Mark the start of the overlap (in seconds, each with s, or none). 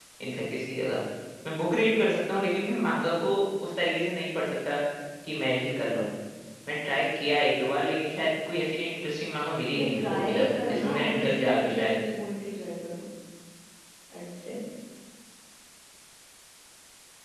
9.7 s